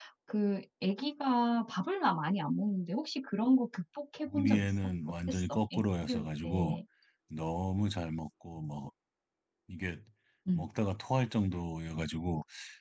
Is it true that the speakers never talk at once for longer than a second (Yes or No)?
No